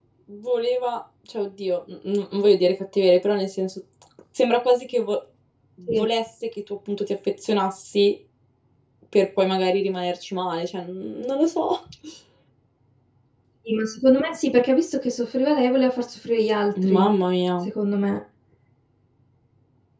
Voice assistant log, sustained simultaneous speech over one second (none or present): none